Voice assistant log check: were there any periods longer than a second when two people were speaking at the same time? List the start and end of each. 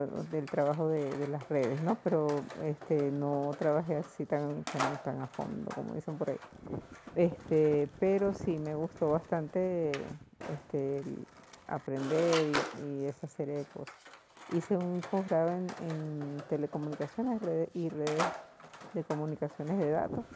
none

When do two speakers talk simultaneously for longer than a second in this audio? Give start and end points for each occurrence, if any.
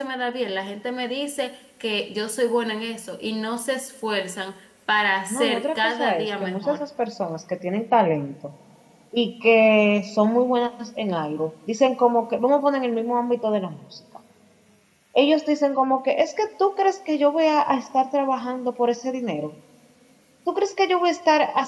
5.3-6.8

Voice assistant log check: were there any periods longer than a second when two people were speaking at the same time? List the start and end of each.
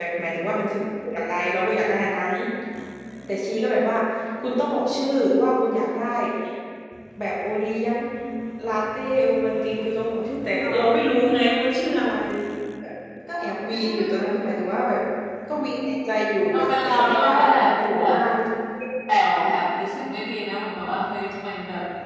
16.5-18.2

